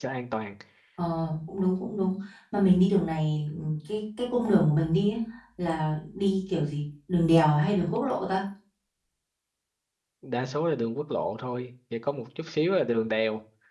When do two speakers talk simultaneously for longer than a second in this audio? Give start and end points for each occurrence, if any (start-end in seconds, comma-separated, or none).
none